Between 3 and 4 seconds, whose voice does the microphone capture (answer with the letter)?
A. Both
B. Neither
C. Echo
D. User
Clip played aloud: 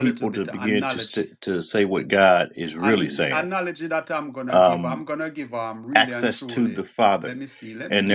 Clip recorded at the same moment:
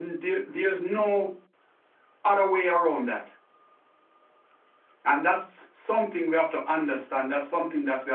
D